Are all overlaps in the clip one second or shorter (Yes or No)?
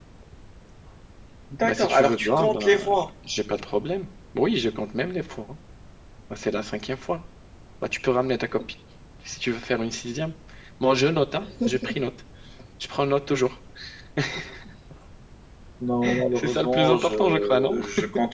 No